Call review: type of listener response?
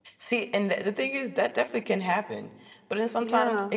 listening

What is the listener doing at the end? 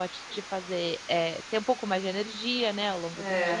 taking over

